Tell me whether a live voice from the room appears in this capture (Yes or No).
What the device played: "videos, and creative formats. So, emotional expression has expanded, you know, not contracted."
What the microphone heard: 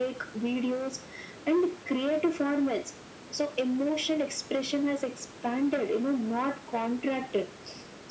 No